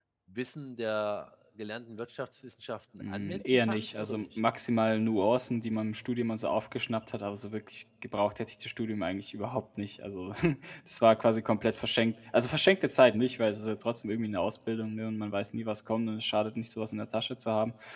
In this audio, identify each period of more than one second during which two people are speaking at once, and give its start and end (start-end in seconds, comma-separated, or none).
3.0-4.4